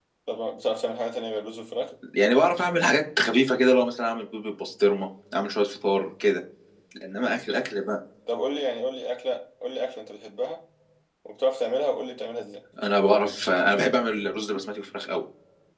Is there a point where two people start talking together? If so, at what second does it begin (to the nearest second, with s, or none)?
none